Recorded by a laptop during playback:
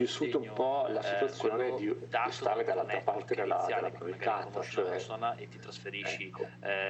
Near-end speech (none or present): none